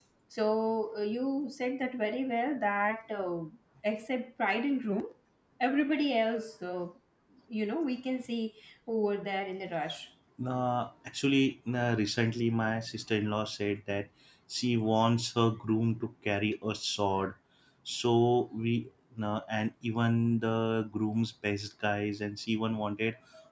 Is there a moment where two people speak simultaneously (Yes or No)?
No